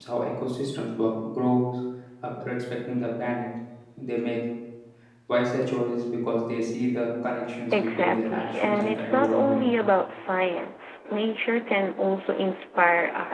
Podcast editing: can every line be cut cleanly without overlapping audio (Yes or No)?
No